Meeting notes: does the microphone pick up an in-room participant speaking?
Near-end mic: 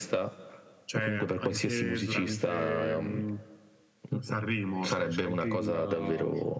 No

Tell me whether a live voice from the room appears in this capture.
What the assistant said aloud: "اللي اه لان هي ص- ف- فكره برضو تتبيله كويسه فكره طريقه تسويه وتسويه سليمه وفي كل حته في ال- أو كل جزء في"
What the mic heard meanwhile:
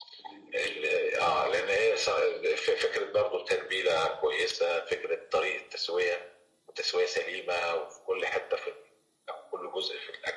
No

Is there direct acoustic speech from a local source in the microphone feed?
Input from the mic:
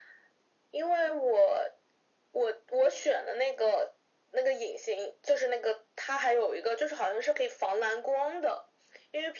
No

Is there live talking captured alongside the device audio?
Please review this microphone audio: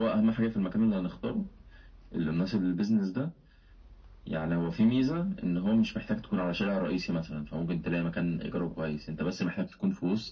No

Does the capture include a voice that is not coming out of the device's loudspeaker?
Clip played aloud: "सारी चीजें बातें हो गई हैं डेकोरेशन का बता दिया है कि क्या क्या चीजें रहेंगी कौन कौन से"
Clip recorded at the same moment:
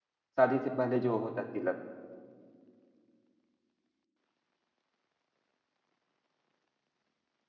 Yes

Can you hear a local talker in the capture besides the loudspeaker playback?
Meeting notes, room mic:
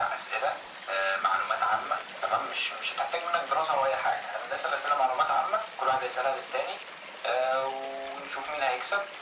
No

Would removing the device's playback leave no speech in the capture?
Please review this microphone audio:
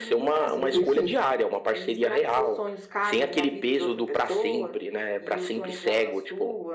No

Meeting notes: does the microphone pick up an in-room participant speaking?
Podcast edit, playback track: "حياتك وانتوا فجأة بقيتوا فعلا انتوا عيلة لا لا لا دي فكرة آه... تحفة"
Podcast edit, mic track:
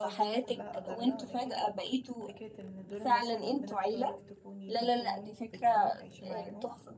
Yes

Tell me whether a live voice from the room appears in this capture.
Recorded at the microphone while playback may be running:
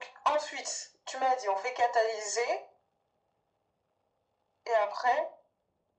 No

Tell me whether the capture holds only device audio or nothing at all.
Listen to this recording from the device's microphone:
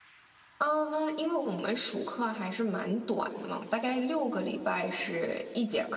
Yes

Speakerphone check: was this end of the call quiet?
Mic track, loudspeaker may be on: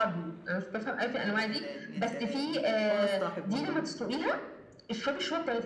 No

